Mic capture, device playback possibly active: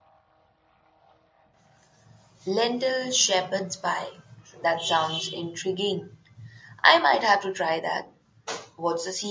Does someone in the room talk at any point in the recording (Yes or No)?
Yes